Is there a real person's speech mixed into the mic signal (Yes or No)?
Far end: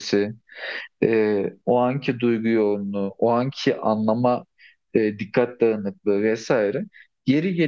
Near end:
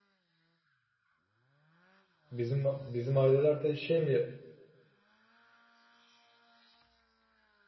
Yes